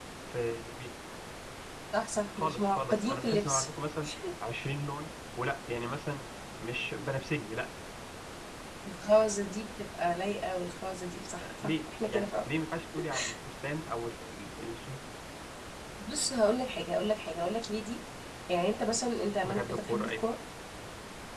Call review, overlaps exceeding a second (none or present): present